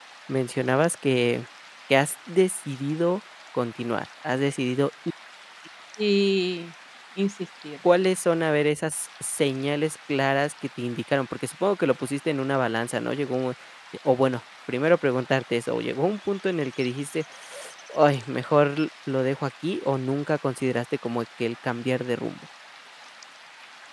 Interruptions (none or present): none